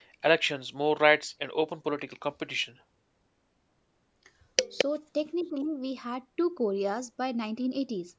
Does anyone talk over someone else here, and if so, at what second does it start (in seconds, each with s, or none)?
none